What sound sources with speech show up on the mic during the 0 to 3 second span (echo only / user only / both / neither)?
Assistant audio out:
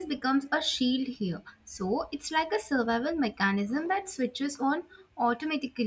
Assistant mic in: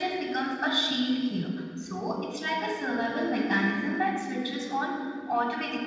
echo only